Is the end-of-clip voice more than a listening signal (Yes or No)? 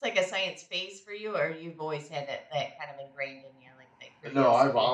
Yes